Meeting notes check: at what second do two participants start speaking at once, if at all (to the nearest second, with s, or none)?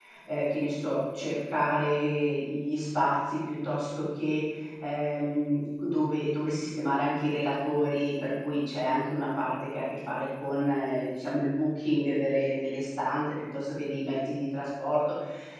none